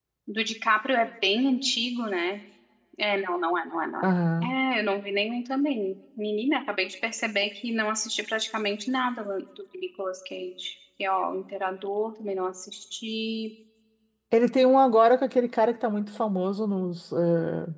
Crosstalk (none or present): none